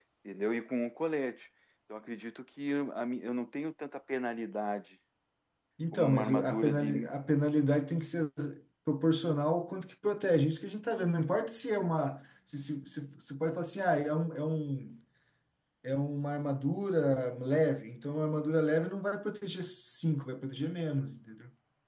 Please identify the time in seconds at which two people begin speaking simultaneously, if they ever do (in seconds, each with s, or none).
5.9 s